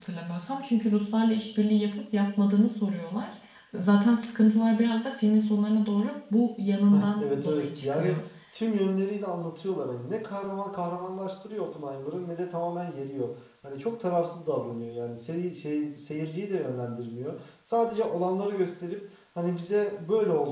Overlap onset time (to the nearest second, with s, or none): 7 s